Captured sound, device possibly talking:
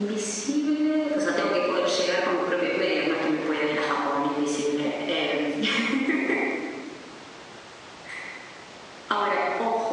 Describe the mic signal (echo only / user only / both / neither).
echo only